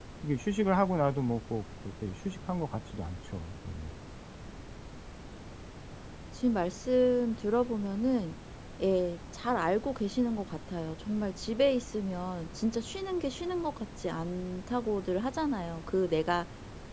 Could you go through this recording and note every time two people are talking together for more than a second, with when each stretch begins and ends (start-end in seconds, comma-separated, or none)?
none